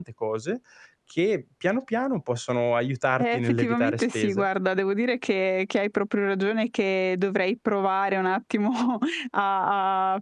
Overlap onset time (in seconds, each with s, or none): 3.2 s